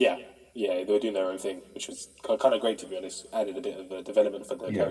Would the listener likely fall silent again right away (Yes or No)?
No